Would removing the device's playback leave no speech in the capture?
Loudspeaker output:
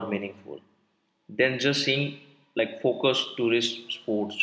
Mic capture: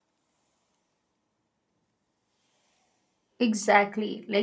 No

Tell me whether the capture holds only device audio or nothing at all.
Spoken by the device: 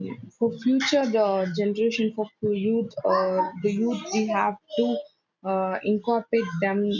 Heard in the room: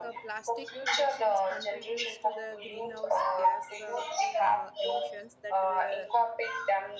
No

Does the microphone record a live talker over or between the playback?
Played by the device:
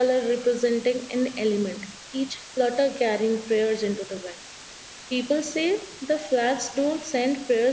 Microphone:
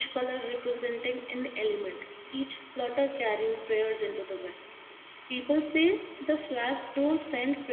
No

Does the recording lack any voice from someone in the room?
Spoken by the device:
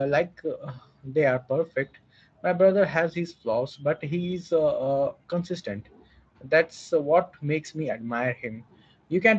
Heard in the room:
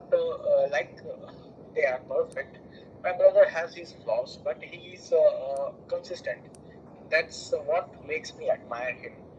Yes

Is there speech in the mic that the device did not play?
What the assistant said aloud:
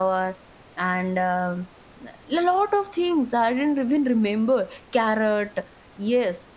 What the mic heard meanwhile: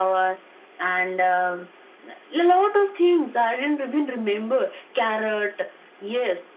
No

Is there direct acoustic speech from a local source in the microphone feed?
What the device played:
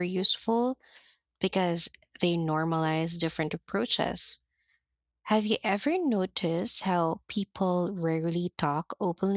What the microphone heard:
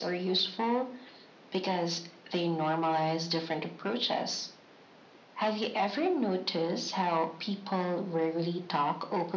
No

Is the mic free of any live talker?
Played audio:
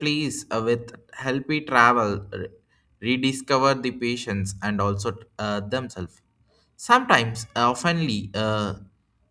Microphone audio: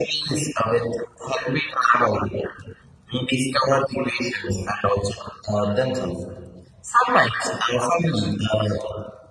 Yes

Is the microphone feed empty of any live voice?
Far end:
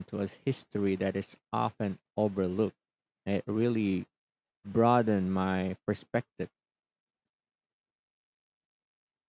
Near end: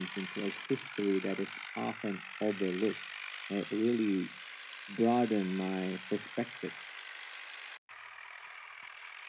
Yes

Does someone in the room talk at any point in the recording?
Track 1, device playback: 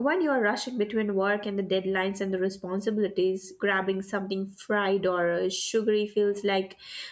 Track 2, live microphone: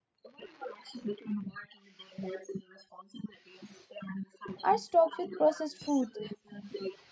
Yes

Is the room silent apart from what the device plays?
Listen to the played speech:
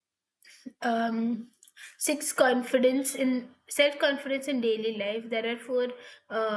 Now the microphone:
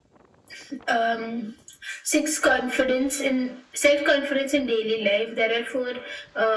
Yes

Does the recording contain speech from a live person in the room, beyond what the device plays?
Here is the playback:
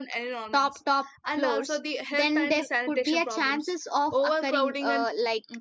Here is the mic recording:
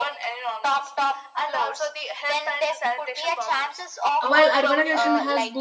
Yes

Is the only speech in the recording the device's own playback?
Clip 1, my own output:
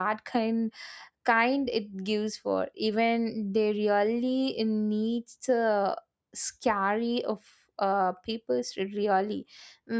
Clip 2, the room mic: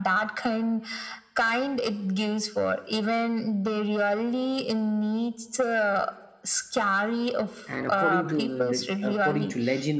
No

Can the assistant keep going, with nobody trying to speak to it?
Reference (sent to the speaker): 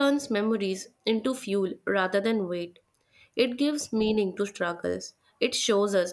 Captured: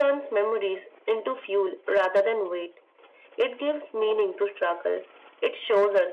Yes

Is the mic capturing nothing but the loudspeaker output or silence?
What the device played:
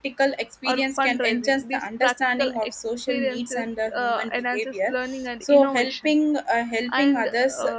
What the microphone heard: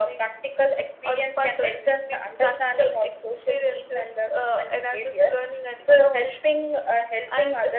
Yes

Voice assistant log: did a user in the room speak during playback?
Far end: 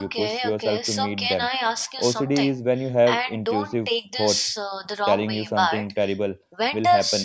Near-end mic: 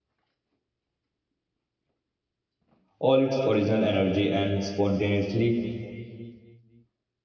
Yes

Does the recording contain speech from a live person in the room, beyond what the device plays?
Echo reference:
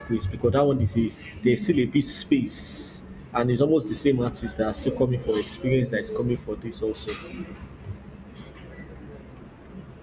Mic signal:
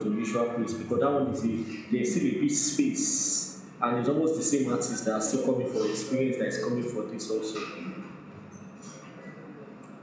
No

